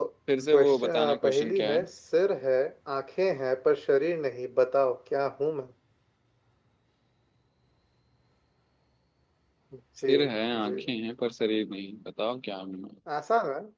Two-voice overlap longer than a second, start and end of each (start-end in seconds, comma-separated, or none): 0.5-1.8